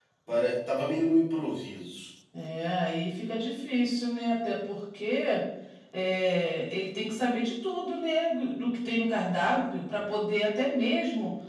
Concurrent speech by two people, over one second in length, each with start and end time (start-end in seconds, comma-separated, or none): none